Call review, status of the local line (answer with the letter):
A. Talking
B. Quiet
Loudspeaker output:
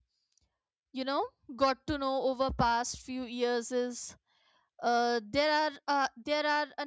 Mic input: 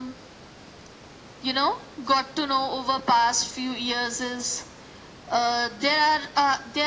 B